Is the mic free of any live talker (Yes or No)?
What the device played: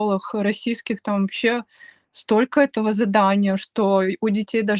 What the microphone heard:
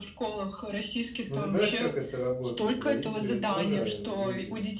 No